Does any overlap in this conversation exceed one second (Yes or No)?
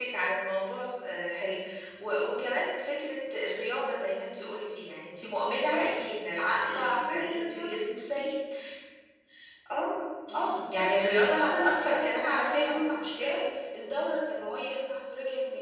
Yes